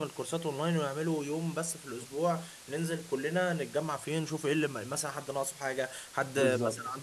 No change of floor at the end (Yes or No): Yes